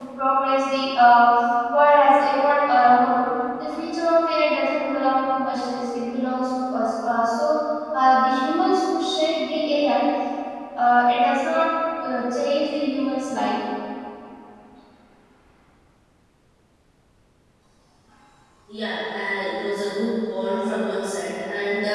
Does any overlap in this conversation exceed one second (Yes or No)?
No